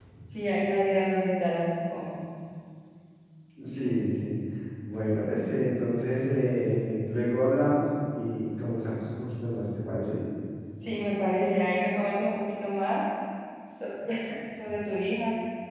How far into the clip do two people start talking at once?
none

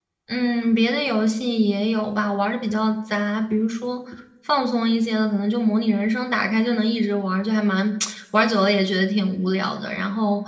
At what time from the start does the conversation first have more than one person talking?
none

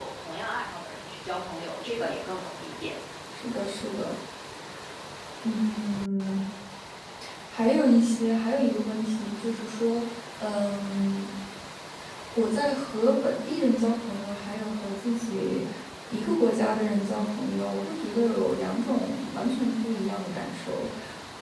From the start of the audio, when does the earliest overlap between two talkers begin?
none

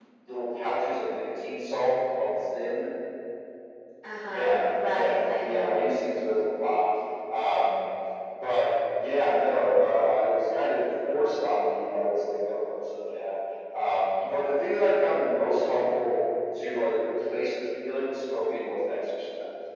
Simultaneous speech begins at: 4.2 s

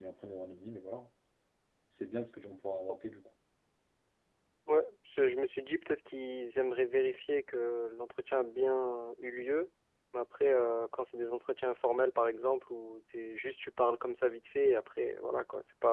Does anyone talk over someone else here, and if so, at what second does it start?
none

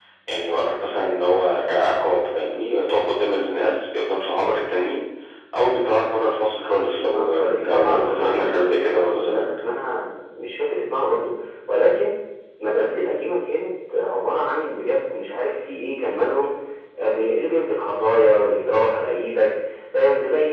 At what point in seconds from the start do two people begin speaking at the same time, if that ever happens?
7.1 s

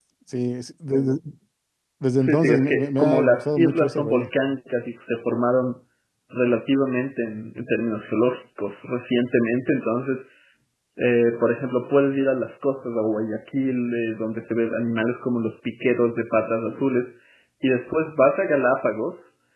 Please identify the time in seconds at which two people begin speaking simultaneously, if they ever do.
2.2 s

